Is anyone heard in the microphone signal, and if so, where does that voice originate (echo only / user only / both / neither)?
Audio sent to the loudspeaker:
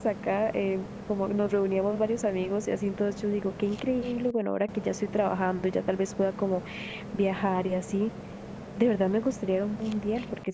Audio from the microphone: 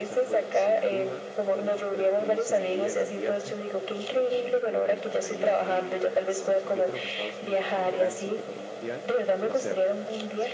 both